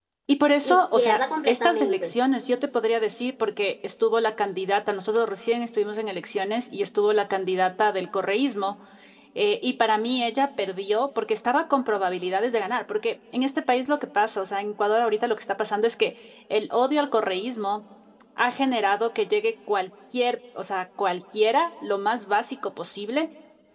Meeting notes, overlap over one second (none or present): present